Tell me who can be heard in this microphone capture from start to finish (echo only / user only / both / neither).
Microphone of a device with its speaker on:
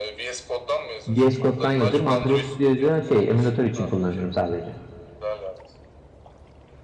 both